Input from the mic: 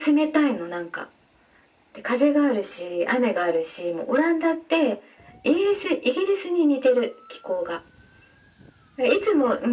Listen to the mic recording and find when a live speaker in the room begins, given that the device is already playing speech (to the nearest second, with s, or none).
none